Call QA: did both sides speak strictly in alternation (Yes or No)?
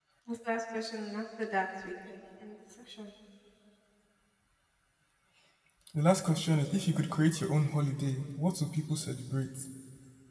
Yes